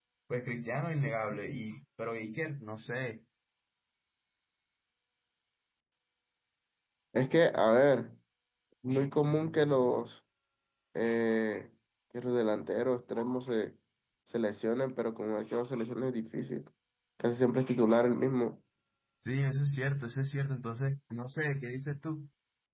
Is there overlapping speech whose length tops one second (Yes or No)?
No